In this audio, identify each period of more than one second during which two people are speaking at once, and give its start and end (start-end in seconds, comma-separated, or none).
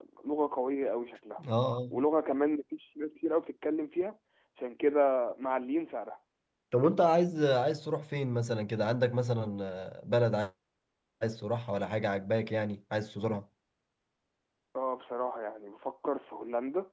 none